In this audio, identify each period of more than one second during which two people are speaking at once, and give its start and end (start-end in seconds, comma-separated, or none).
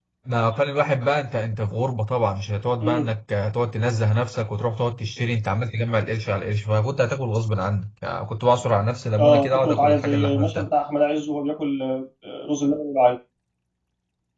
9.2-10.7